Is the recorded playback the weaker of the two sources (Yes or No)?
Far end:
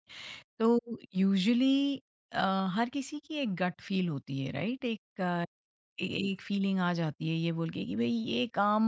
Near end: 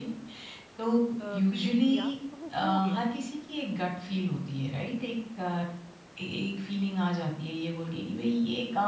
No